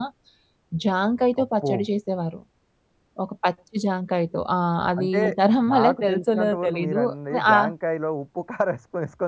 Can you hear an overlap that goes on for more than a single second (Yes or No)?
Yes